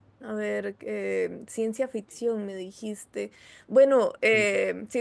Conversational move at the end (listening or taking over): listening